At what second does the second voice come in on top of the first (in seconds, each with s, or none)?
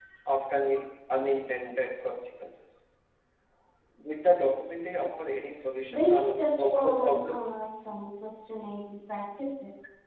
5.9 s